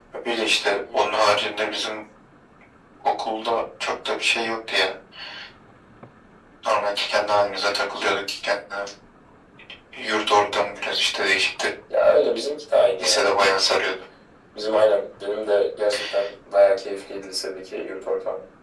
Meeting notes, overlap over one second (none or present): none